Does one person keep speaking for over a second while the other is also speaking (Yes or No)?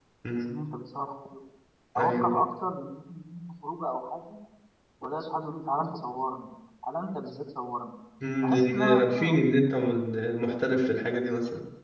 Yes